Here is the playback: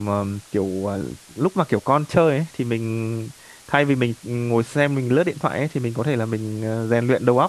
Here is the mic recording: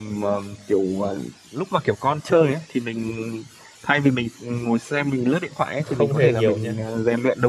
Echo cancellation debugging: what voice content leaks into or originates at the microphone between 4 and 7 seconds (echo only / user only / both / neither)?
both